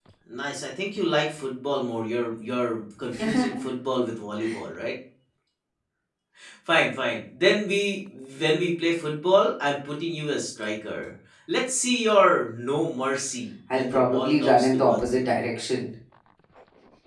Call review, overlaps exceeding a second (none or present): present